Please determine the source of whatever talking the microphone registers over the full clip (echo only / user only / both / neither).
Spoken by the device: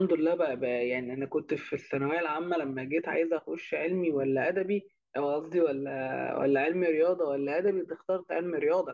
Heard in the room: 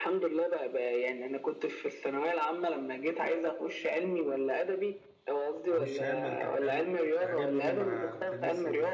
both